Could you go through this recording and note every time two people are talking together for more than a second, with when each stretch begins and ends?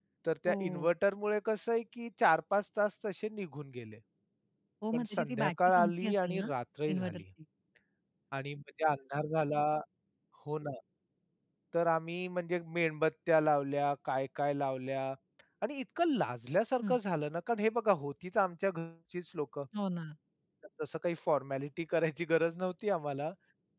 4.9-6.5

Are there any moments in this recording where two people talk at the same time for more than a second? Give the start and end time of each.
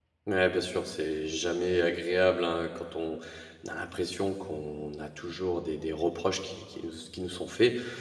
none

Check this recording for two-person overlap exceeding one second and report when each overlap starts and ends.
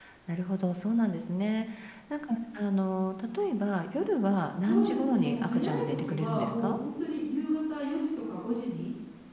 4.6-6.8

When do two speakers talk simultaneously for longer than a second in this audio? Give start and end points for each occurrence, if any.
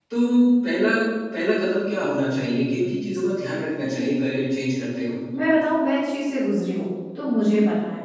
none

